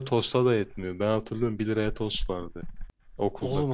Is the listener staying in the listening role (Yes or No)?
No